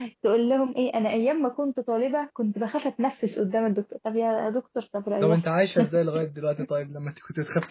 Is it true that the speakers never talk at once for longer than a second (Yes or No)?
Yes